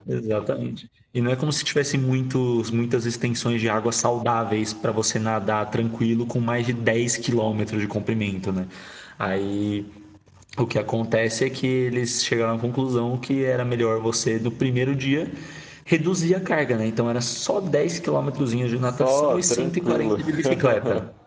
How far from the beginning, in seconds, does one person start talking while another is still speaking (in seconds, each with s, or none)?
18.7 s